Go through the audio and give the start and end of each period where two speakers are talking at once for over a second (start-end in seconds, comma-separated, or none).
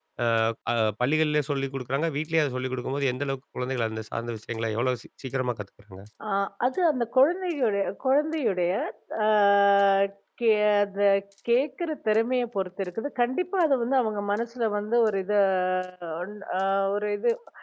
none